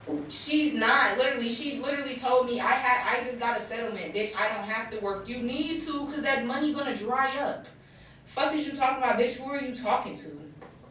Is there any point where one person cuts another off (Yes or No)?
No